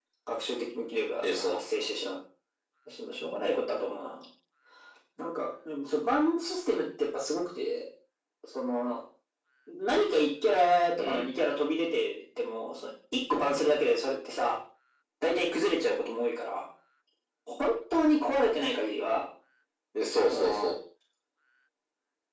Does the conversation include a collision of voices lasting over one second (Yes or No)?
No